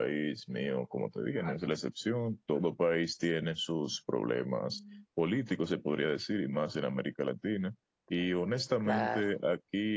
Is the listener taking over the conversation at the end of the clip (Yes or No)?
No